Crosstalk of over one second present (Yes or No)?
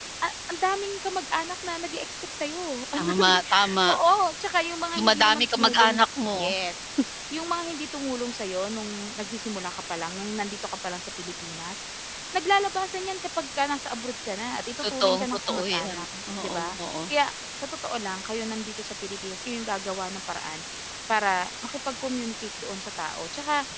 Yes